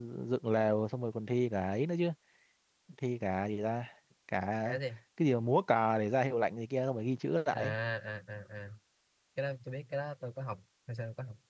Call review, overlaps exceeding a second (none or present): none